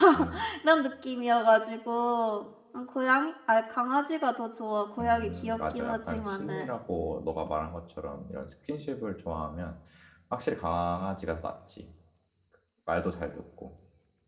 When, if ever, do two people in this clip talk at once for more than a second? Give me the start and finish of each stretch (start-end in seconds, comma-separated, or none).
5.0-6.7